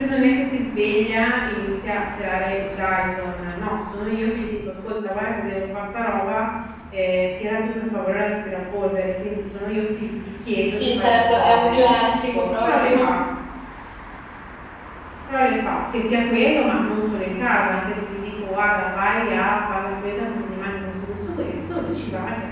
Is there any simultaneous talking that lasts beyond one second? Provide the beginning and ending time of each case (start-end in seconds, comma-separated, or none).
10.7-13.1